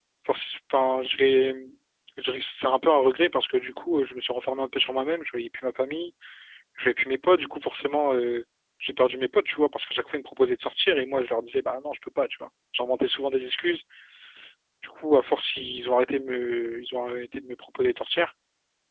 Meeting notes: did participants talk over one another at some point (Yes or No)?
No